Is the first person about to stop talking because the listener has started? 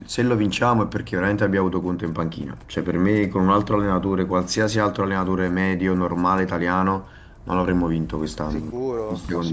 Yes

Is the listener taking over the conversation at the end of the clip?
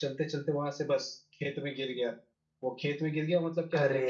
No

